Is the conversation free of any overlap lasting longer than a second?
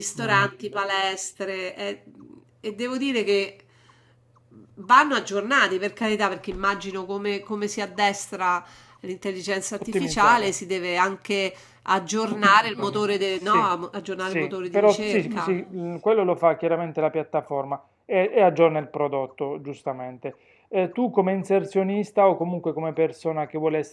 No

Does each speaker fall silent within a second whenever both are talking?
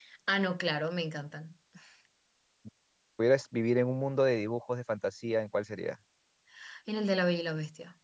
Yes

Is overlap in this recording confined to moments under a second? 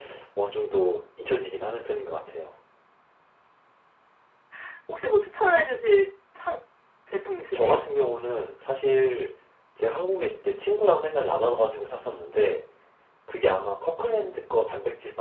Yes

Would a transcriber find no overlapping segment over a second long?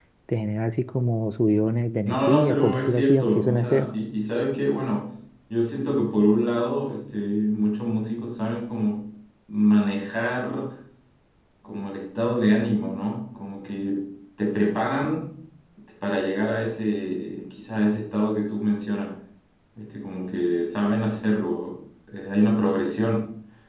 No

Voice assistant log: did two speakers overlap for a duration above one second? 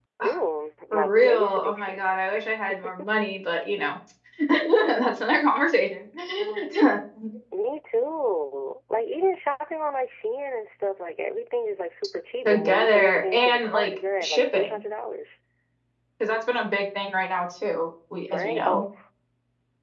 Yes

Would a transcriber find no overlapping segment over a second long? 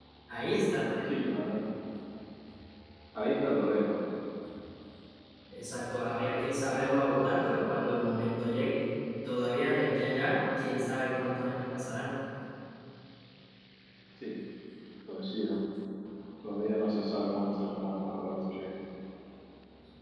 Yes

